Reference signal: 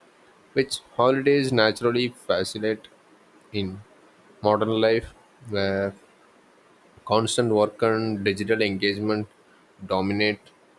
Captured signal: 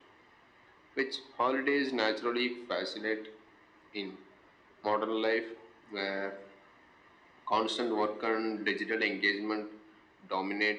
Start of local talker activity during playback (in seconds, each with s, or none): none